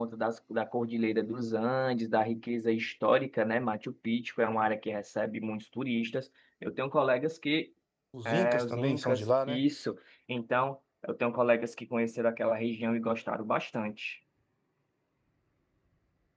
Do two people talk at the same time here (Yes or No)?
Yes